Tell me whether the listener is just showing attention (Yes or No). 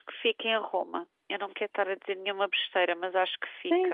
No